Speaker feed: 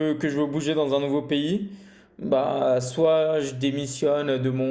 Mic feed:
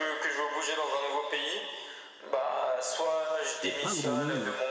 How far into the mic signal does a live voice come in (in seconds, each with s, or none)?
3.6 s